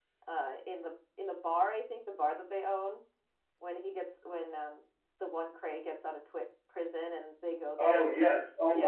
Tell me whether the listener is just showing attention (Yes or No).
No